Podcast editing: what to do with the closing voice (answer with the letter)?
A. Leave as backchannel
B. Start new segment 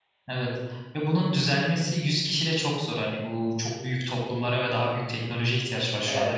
B